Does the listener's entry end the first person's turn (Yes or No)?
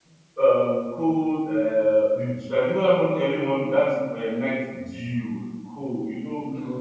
No